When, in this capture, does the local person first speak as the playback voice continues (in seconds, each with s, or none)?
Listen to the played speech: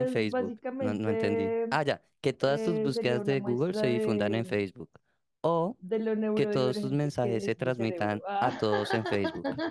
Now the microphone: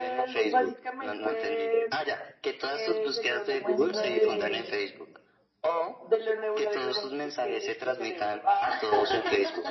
3.6 s